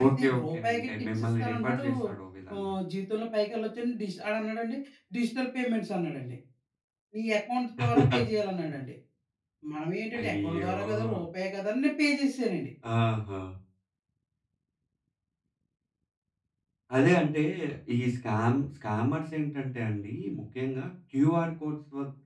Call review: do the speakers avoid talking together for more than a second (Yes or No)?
No